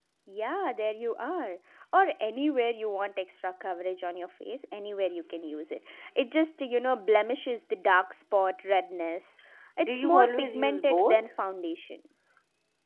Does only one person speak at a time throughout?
No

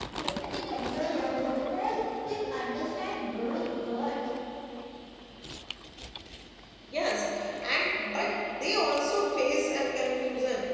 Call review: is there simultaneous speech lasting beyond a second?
No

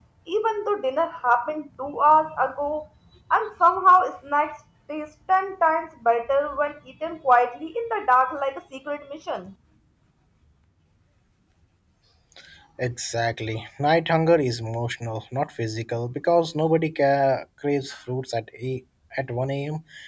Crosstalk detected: No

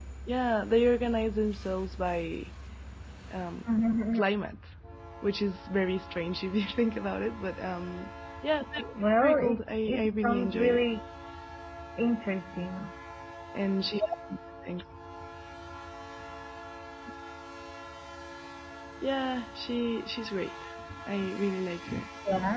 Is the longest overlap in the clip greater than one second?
Yes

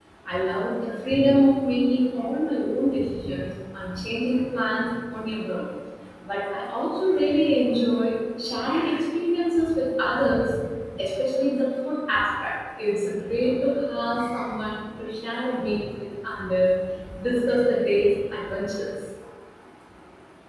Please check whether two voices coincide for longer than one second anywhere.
No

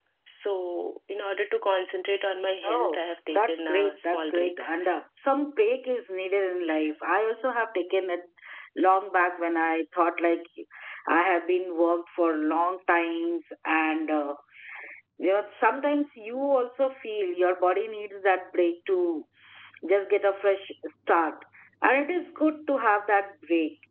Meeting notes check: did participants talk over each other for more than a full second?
Yes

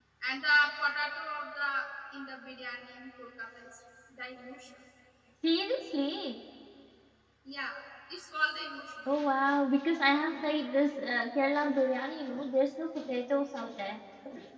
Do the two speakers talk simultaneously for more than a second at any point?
No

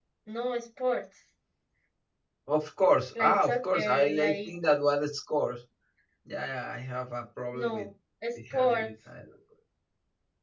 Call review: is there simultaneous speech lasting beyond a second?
Yes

